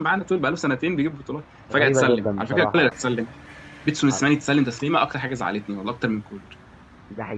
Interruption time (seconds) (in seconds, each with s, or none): 1.7 s